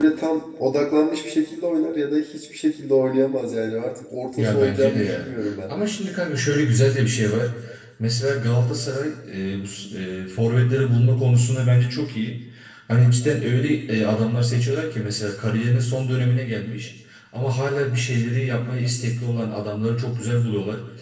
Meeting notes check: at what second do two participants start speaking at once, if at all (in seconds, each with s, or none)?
4.4 s